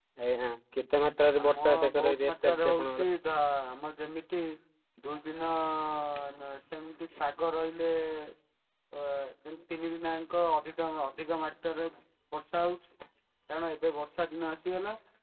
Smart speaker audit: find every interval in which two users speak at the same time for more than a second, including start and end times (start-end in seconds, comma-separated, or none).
1.4-3.0